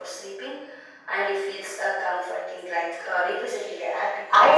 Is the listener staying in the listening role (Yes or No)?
No